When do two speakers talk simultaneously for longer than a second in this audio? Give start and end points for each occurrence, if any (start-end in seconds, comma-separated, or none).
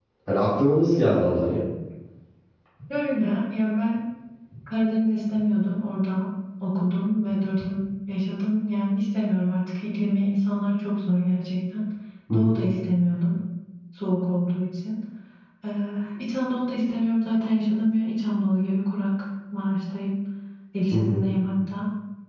none